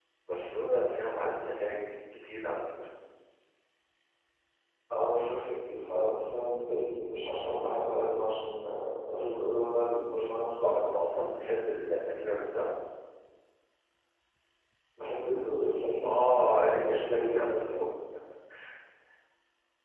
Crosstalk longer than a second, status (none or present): present